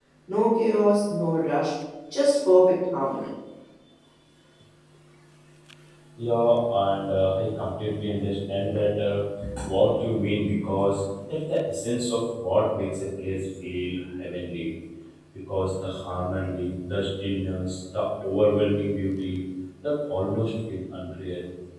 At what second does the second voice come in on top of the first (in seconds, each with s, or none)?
none